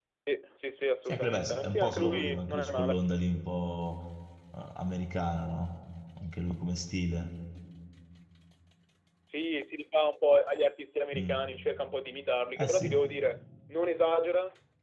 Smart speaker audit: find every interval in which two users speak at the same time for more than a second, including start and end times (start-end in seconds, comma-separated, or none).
1.1-3.0